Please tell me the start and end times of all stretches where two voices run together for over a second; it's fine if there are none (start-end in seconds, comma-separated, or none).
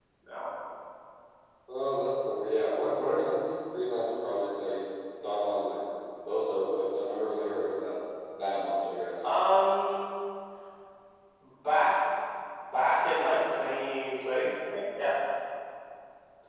none